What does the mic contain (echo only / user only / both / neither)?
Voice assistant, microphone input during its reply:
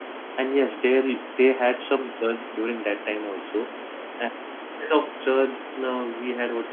user only